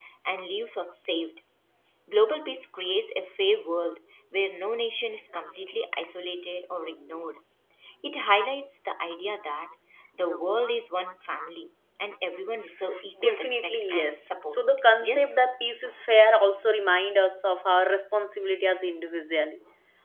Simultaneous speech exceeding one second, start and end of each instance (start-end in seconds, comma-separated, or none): 13.2-14.6